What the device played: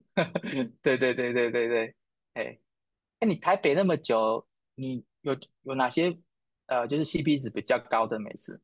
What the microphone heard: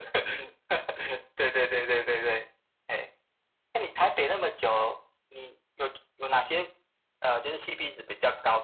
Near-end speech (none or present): none